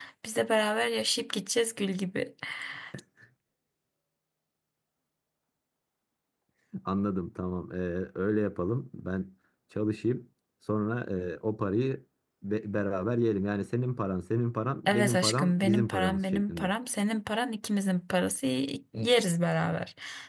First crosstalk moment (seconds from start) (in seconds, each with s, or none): 14.9 s